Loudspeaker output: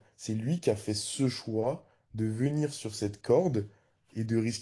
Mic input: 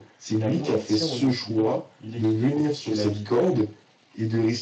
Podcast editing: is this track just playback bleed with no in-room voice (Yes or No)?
No